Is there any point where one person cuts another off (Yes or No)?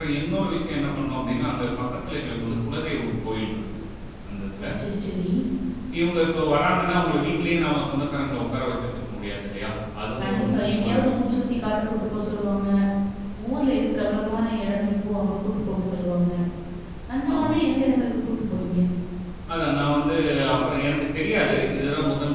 Yes